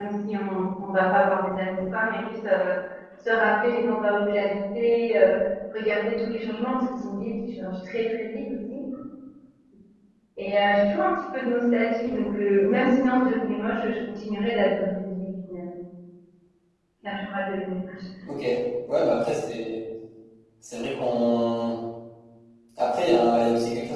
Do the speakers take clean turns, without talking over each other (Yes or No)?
Yes